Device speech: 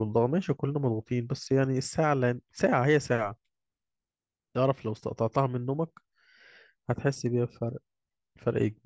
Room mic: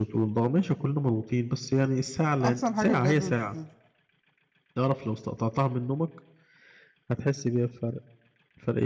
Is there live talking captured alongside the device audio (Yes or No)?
Yes